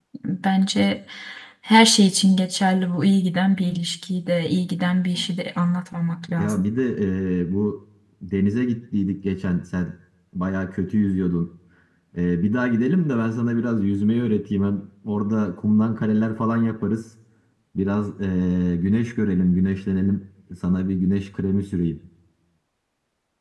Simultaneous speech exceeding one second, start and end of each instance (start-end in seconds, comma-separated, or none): none